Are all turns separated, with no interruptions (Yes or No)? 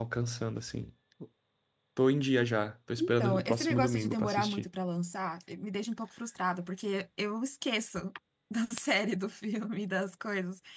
No